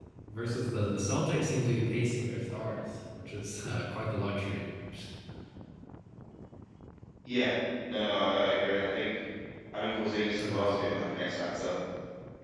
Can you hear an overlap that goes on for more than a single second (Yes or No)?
No